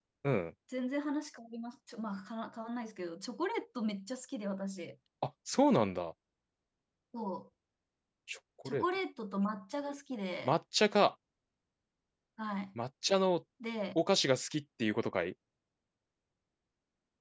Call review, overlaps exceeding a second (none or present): none